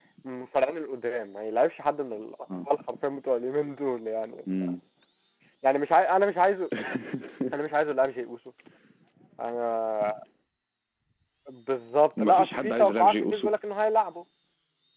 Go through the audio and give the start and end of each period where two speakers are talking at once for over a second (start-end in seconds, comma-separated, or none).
12.2-13.5